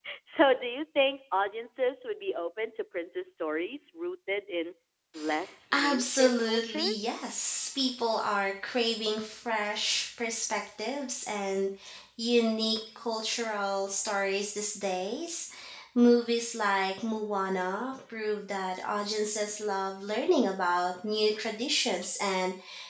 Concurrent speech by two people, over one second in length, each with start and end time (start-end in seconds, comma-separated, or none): 5.7-7.2